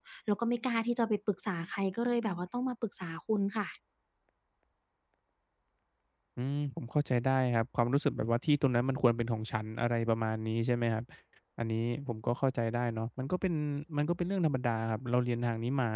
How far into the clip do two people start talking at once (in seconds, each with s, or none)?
none